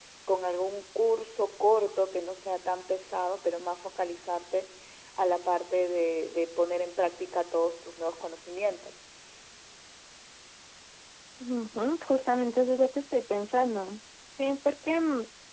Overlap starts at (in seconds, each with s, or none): none